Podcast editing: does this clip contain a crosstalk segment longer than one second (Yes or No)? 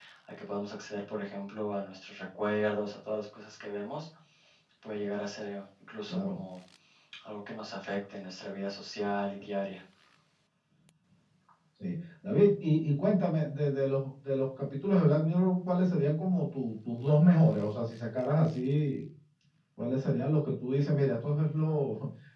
No